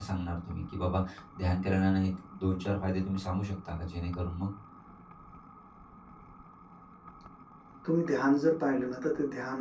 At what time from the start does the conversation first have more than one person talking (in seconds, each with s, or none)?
none